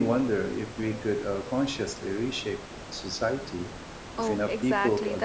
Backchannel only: No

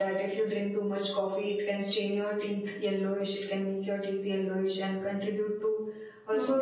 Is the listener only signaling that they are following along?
Yes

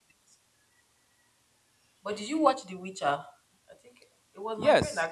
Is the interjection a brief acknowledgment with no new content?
No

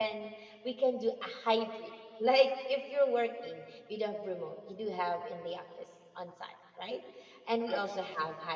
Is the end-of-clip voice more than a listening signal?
No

